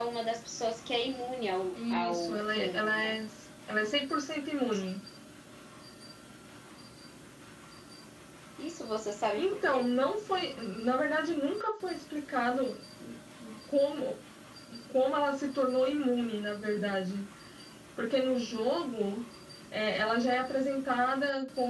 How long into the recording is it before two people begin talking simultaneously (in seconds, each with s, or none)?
1.7 s